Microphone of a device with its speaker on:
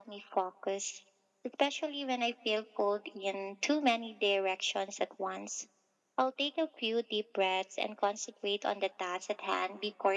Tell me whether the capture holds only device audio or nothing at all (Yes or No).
Yes